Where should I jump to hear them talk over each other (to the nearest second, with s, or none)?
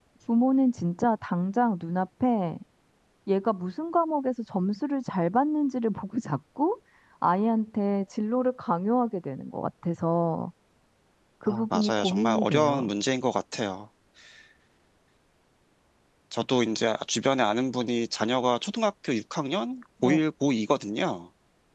11 s